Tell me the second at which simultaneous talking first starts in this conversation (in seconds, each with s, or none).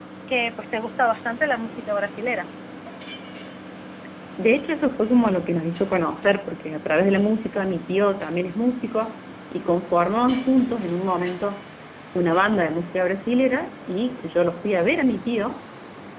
none